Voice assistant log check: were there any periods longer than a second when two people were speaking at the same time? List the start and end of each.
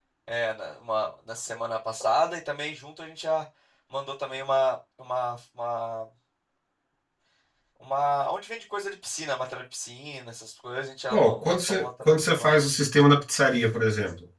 11.1-12.6

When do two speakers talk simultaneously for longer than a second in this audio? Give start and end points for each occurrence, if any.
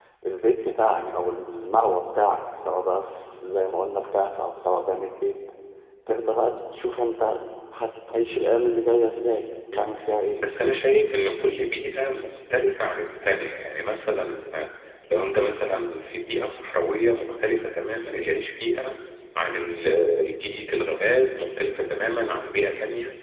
none

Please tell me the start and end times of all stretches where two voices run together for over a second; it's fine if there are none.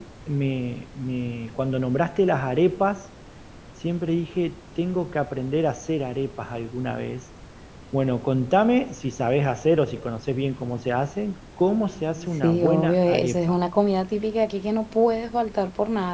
12.1-13.6

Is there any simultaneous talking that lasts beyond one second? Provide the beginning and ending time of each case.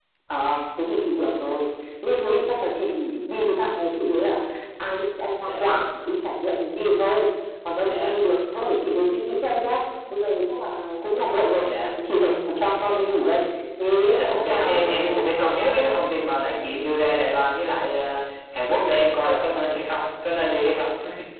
14.0-16.0

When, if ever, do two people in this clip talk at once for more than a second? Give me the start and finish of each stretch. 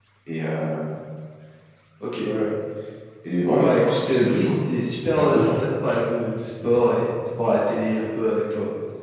3.4-4.8

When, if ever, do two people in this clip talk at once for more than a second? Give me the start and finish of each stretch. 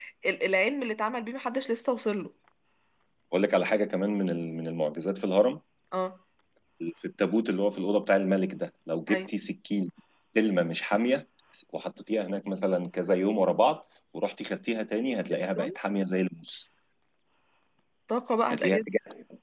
none

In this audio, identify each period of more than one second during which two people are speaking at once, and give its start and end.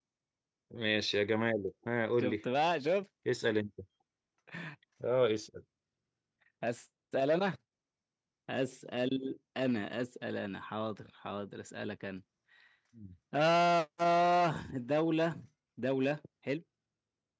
none

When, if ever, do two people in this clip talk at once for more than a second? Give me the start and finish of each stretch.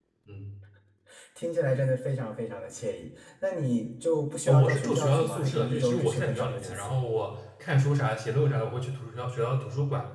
4.5-7.0

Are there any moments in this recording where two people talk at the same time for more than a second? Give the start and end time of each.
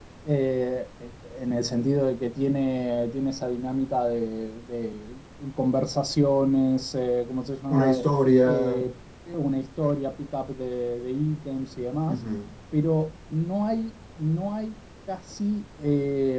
none

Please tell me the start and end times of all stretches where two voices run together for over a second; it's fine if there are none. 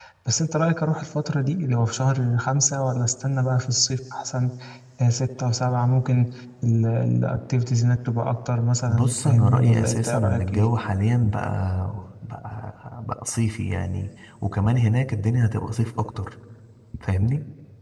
8.9-10.6

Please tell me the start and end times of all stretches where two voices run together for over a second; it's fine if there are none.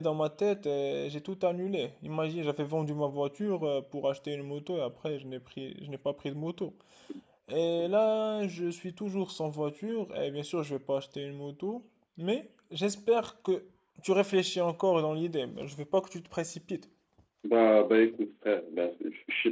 none

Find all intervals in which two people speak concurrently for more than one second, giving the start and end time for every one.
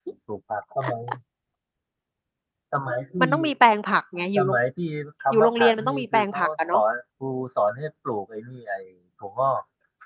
5.3-6.8

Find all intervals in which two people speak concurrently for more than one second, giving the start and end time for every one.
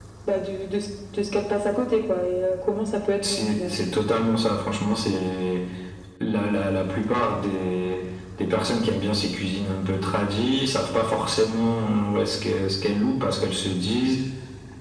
none

